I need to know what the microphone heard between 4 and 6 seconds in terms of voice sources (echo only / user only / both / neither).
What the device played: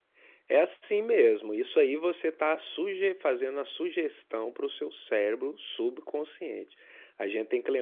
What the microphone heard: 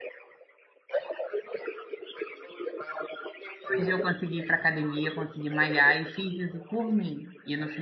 both